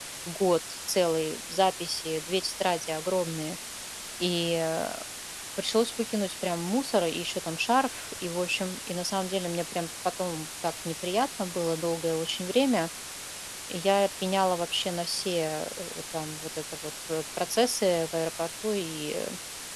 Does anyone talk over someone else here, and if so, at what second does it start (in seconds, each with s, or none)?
none